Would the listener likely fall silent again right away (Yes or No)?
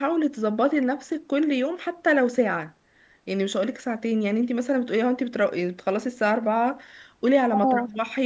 Yes